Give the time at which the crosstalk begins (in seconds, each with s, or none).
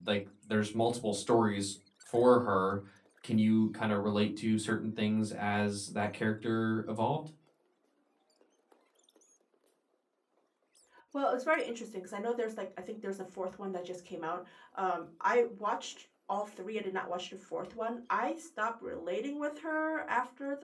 none